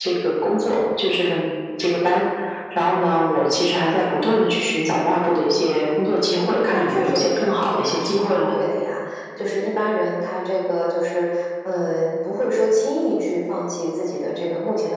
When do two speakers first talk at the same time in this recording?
6.4 s

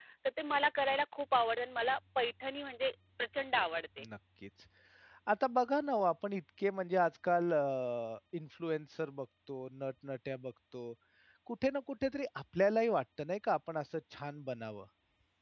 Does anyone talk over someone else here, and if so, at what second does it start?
none

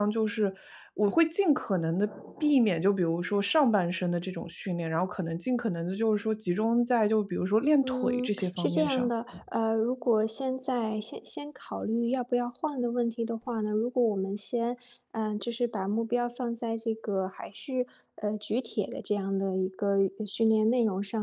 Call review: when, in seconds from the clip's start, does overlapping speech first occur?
7.8 s

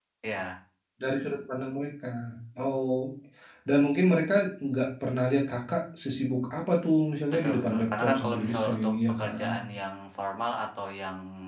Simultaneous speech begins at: 7.3 s

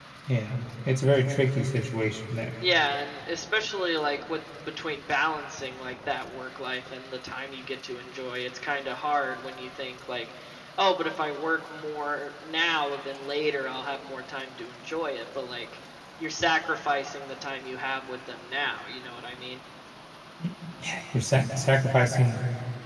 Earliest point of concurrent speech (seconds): none

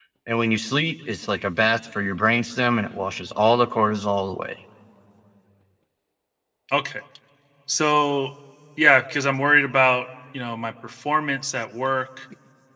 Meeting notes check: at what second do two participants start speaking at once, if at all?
none

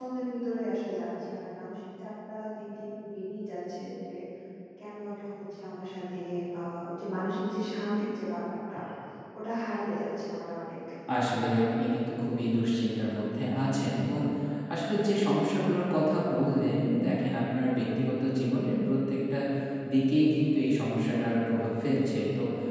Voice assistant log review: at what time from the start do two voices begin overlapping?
none

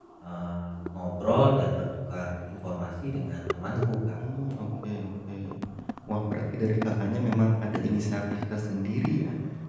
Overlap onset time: none

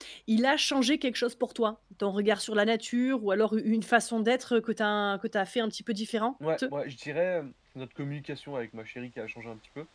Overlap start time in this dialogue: none

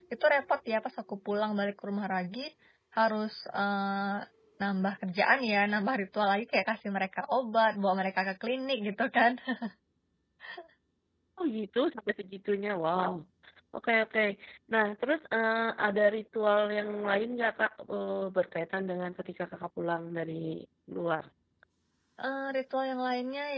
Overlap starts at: none

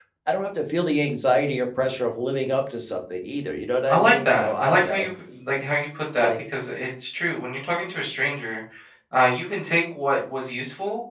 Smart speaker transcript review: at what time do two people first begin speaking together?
3.9 s

